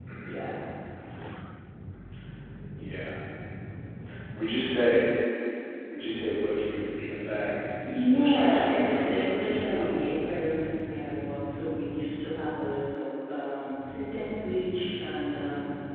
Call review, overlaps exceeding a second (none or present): present